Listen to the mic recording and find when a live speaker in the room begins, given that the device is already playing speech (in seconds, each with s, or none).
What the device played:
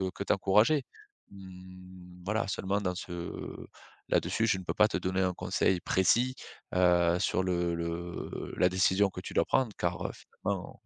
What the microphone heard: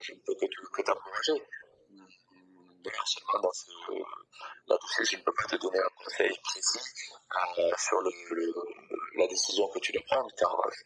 none